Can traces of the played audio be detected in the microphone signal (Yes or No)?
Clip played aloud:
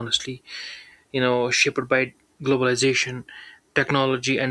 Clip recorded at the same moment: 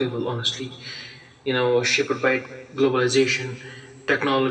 Yes